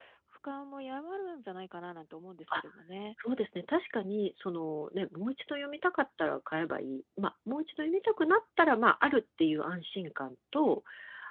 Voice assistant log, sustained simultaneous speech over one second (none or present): none